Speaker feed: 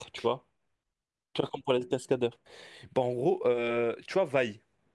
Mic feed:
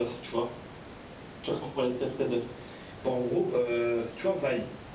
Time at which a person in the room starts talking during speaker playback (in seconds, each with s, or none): none